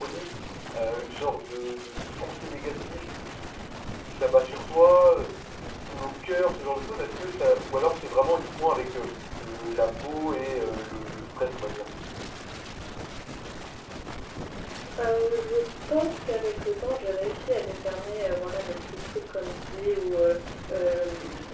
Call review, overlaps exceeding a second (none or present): none